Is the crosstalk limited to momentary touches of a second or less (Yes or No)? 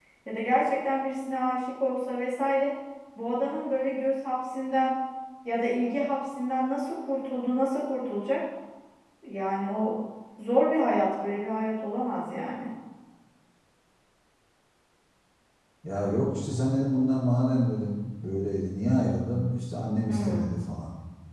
Yes